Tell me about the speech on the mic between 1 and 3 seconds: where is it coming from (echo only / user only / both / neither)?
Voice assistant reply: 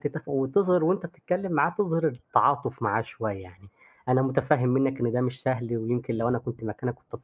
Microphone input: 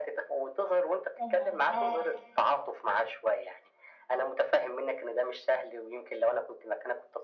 both